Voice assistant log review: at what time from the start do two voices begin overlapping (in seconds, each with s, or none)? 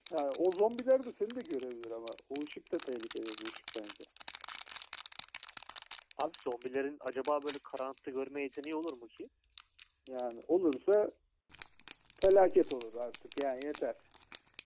none